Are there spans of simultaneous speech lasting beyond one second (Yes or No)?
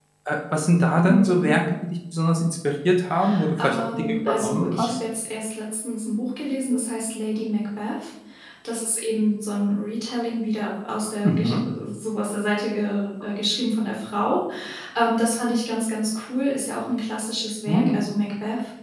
Yes